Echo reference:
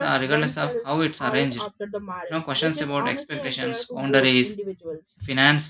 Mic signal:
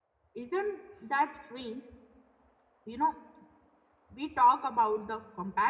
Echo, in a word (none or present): none